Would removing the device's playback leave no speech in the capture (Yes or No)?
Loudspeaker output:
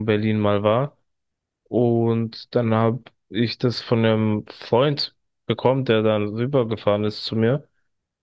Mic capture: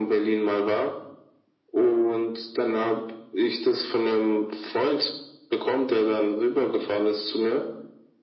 Yes